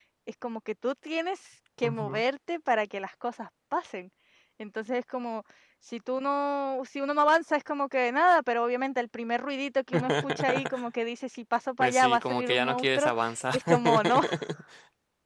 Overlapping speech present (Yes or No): Yes